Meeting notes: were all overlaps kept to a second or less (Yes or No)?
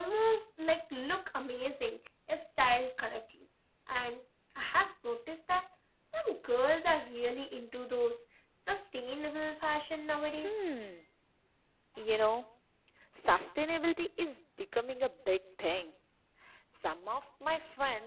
Yes